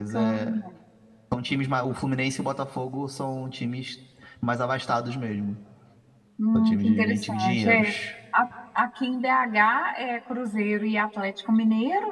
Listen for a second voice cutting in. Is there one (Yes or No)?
Yes